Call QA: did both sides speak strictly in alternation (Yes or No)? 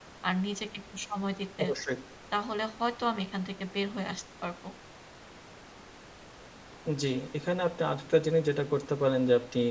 Yes